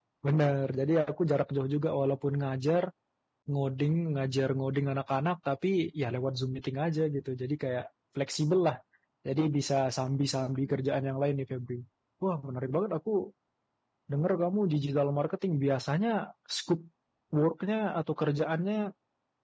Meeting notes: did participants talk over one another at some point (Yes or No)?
No